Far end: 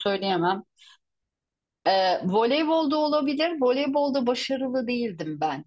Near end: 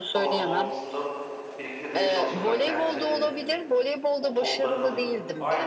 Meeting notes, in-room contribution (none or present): present